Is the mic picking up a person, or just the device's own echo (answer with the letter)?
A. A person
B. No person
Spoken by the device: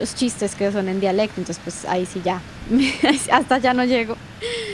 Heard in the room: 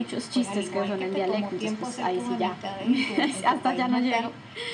A